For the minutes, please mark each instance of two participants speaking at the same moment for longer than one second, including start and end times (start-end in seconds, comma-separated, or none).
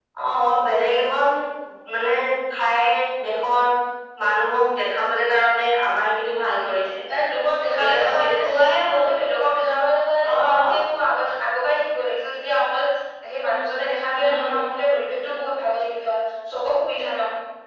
7.8-9.0